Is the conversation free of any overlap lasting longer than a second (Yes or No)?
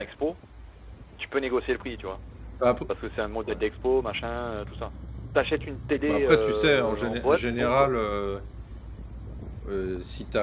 No